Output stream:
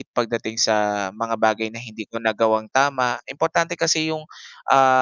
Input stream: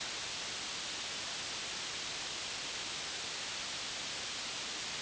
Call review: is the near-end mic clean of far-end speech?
Yes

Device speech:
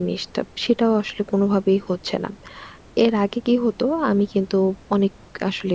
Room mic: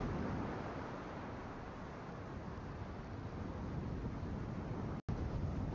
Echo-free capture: Yes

